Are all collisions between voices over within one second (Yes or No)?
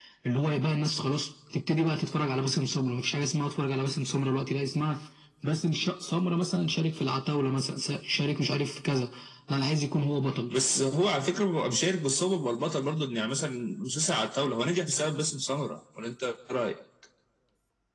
Yes